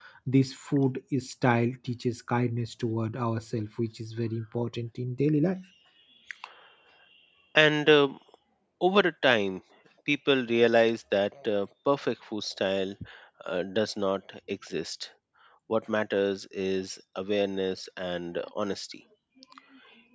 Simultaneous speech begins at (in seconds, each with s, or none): none